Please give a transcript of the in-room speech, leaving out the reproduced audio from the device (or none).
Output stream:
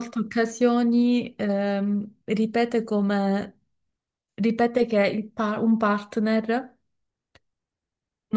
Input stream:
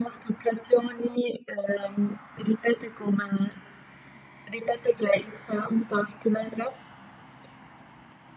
none